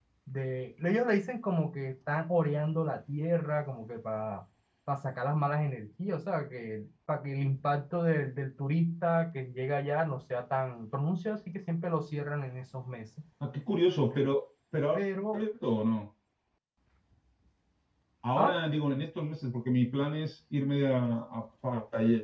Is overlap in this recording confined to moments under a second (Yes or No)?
Yes